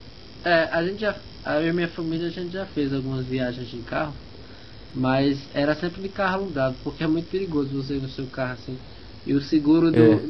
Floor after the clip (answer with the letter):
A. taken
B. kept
B